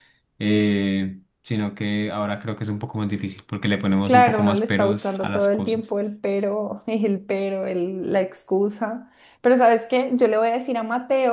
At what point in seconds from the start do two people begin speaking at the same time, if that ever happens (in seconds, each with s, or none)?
4.1 s